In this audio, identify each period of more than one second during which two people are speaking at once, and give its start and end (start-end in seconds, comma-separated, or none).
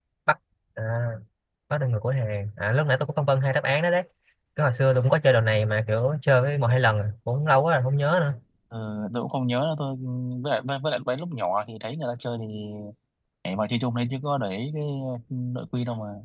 none